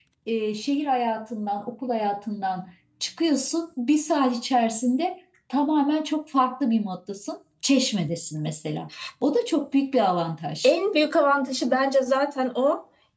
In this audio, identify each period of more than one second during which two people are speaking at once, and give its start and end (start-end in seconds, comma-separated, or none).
none